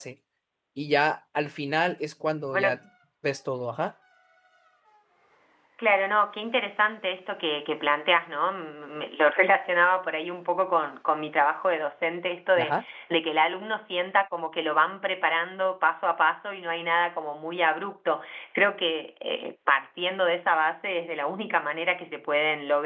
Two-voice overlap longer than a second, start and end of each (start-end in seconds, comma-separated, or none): none